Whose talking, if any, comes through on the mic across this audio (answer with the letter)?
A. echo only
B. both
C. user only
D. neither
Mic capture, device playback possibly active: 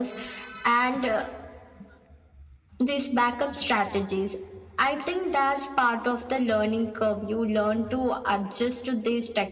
A